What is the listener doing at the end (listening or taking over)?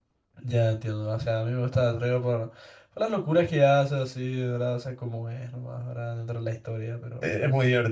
taking over